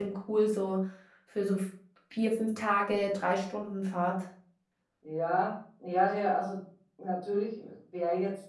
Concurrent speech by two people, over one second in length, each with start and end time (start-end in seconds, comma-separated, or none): none